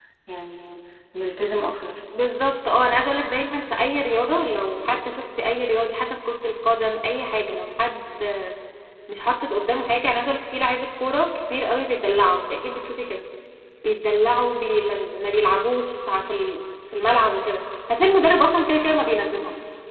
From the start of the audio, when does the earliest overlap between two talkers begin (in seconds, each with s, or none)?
none